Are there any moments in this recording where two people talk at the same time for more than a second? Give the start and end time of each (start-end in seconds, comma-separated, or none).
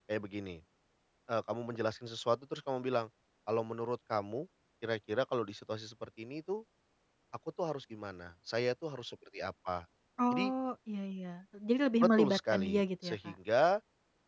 12.0-13.3